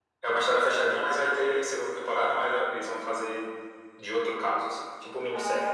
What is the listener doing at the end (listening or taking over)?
taking over